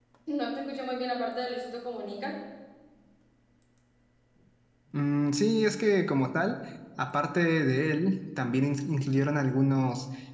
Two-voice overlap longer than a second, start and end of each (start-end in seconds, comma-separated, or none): none